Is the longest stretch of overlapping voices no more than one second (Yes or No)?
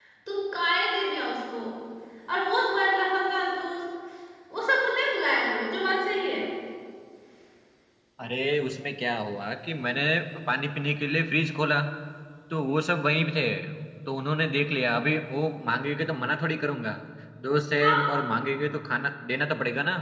Yes